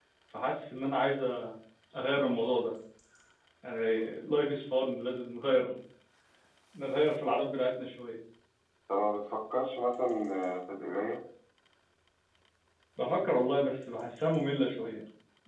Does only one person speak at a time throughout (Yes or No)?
Yes